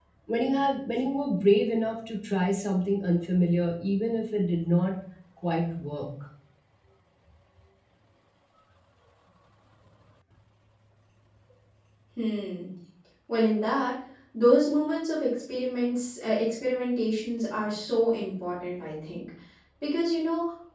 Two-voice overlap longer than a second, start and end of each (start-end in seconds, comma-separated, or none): none